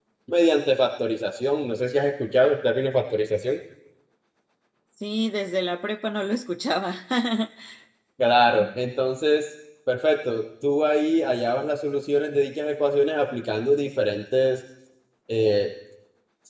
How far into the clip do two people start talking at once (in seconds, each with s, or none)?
none